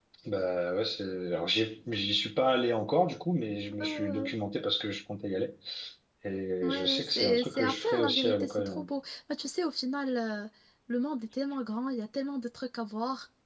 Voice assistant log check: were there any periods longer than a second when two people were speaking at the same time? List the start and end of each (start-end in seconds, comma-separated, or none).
6.6-8.9